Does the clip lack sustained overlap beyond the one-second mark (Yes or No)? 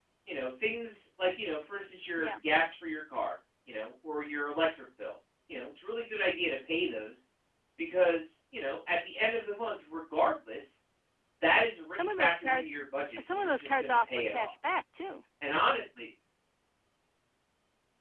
No